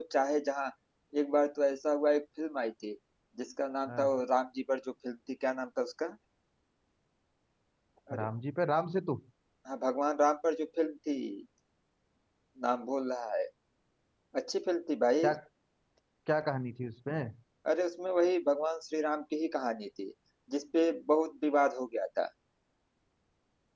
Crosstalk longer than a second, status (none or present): none